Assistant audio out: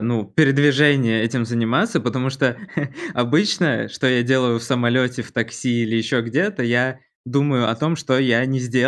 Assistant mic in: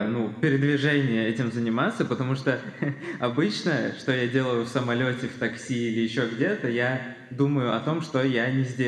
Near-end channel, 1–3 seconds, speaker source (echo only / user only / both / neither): echo only